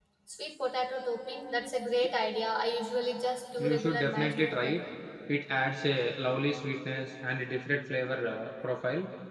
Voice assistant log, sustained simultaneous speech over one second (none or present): present